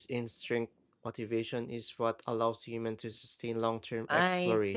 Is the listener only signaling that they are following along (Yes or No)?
No